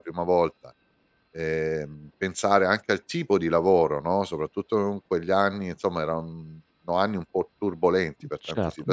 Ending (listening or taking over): taking over